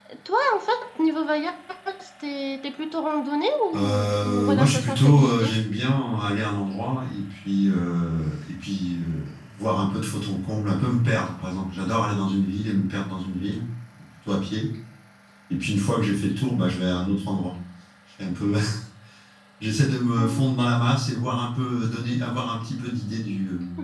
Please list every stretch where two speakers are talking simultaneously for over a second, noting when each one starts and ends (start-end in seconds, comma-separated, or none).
3.7-5.5